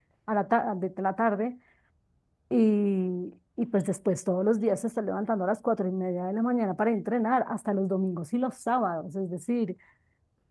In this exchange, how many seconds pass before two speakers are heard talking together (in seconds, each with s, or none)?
none